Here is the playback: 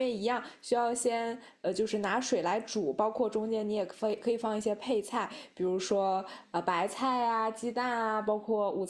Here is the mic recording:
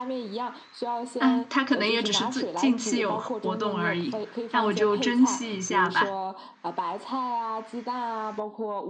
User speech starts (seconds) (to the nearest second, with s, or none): 1 s